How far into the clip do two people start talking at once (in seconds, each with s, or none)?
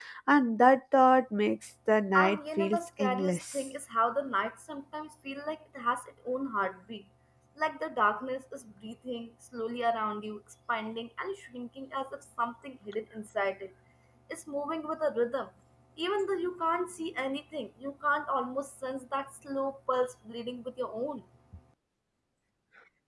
2.1 s